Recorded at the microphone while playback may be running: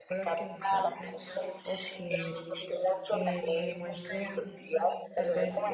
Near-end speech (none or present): present